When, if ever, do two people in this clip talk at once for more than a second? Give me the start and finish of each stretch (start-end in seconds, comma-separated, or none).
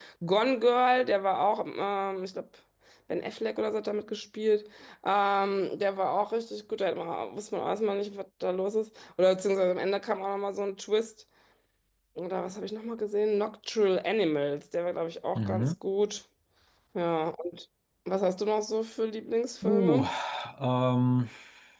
none